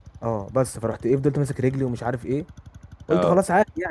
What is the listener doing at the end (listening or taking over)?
listening